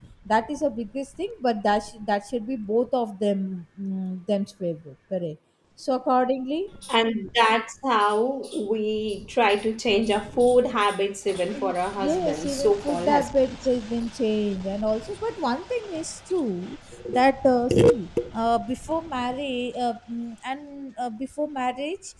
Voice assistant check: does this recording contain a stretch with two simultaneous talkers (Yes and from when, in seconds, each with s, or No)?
Yes, from 11.5 s